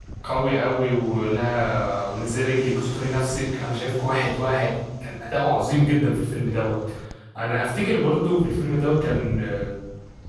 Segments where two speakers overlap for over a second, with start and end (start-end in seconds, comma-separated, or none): none